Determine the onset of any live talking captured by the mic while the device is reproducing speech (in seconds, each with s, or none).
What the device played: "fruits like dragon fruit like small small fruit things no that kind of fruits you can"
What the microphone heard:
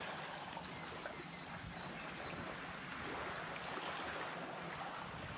none